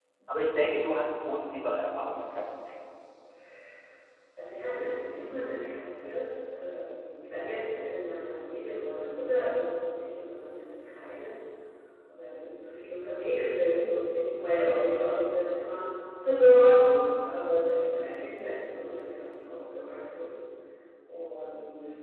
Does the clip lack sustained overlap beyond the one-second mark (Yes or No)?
Yes